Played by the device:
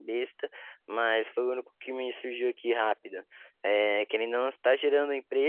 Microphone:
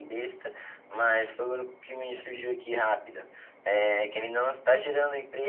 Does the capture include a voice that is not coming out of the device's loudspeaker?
No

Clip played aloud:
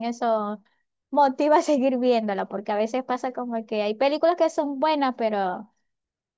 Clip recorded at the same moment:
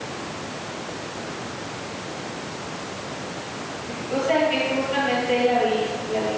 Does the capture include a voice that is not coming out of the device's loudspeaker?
Yes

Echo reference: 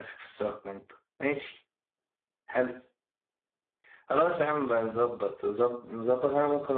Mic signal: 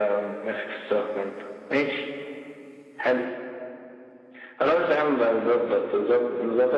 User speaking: No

